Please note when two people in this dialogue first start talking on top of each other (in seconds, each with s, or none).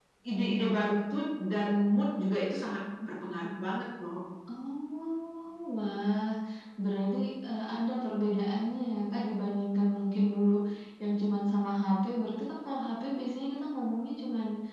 none